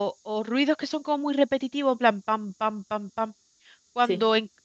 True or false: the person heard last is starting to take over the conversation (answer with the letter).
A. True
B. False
B